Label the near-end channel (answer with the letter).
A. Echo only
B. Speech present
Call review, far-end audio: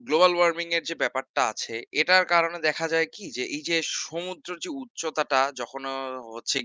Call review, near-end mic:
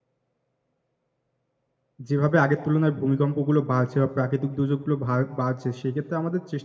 B